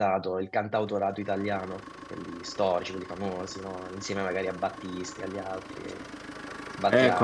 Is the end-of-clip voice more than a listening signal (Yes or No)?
Yes